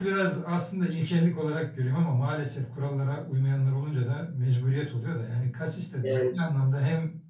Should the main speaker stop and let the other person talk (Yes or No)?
No